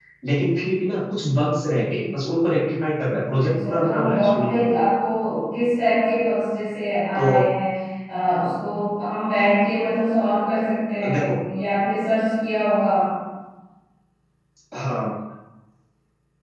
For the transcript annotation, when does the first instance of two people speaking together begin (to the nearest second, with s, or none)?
3 s